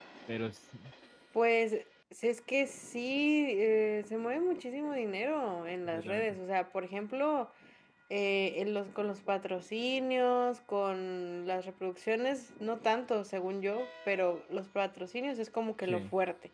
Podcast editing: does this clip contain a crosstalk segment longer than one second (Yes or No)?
No